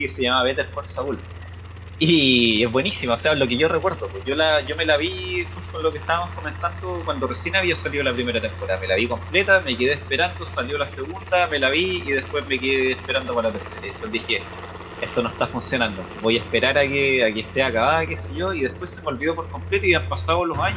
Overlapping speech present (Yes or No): No